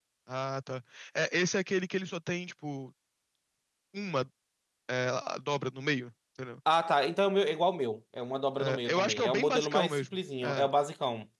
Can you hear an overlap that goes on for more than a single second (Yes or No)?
Yes